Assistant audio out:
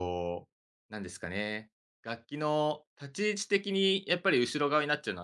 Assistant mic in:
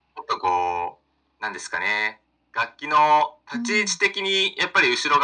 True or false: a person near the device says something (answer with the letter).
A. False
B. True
B